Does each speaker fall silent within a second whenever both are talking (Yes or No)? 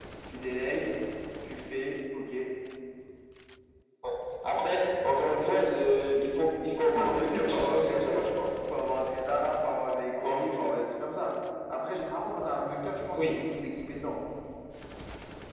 No